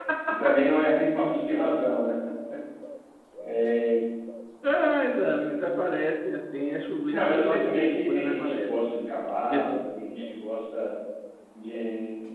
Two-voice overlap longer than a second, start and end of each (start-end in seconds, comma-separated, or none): 7.1-8.8